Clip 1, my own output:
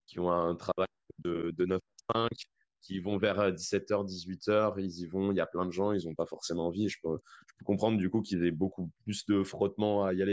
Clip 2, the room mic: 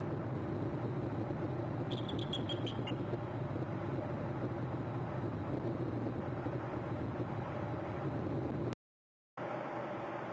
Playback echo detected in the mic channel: No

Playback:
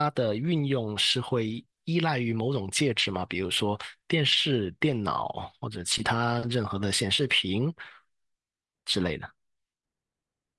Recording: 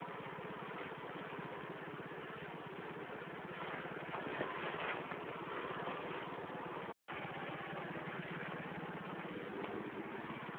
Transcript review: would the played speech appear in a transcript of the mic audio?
No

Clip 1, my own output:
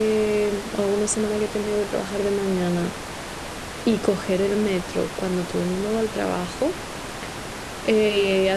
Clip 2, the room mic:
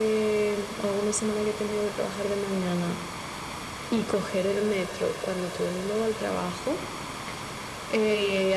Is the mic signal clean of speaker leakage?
No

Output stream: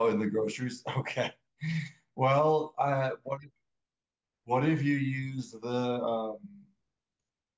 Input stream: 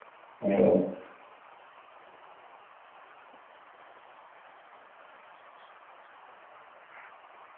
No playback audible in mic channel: Yes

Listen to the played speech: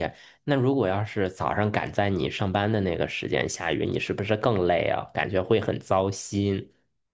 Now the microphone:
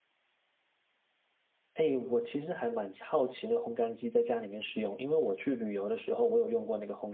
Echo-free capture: Yes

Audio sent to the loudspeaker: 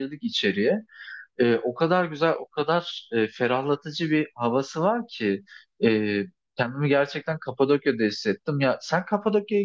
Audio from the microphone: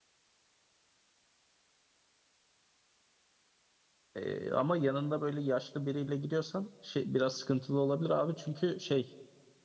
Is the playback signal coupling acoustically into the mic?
No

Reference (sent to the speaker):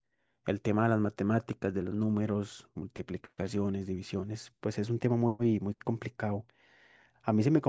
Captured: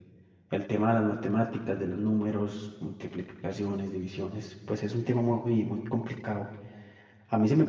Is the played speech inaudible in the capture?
No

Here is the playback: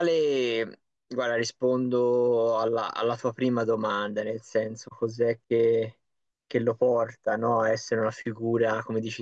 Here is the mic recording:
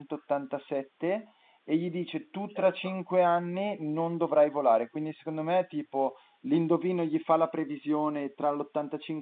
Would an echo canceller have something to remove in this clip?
No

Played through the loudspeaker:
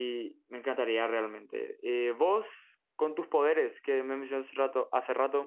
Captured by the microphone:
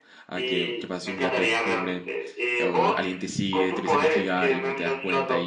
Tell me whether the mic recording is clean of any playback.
No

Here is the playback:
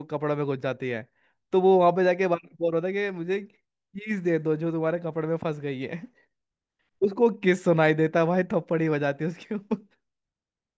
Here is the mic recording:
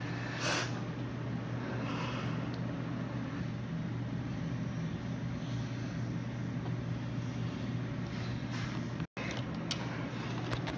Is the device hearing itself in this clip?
No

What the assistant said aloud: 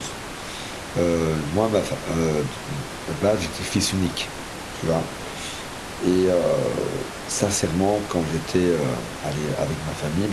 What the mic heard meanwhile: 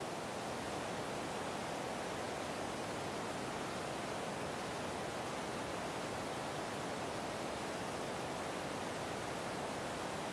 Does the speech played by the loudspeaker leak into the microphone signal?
No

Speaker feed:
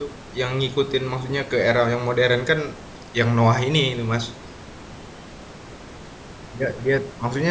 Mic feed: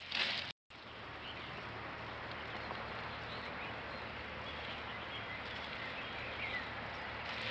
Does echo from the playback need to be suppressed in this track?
No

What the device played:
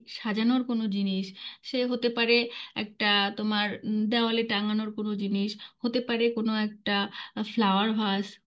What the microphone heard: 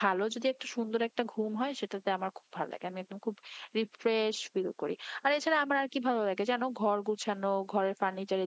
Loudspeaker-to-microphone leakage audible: No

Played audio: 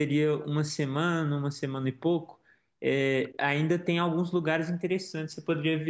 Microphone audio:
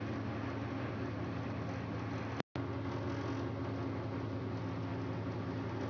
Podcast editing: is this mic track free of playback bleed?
Yes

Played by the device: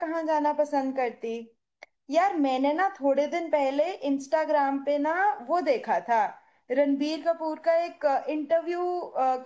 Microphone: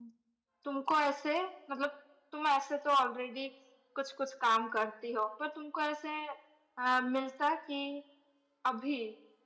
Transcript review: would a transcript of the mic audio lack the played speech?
Yes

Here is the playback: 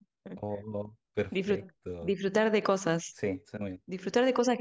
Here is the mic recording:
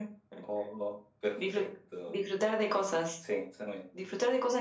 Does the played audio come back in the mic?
Yes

